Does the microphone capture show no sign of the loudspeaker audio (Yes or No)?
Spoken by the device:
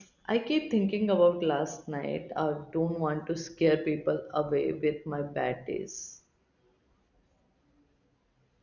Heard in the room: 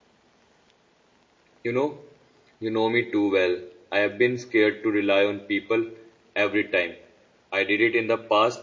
Yes